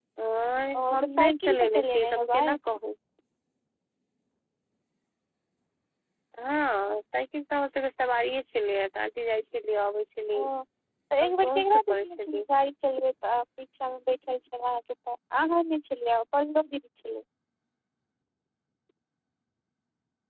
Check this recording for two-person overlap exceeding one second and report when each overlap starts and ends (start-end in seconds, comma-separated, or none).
0.8-2.4, 11.2-12.4